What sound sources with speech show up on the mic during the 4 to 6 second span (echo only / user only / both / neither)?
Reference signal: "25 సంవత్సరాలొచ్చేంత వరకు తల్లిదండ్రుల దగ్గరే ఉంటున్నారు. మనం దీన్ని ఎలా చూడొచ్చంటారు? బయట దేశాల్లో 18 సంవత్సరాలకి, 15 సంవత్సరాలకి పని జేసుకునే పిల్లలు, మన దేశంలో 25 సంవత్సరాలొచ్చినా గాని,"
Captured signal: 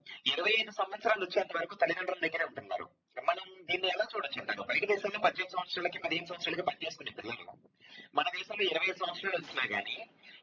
echo only